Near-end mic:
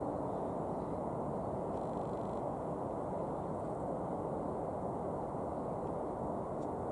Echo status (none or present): none